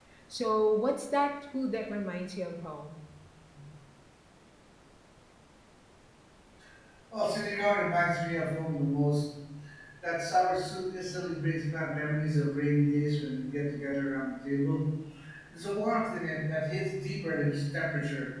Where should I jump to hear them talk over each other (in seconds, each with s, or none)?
none